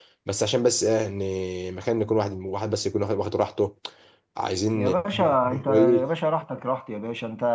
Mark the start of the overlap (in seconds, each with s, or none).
4.7 s